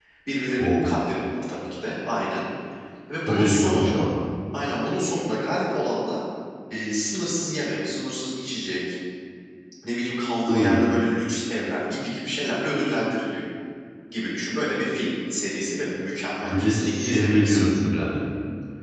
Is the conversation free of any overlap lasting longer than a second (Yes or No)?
No